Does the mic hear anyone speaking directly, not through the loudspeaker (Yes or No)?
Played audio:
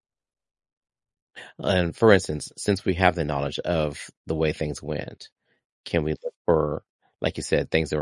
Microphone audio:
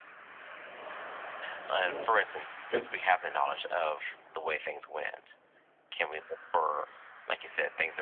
Yes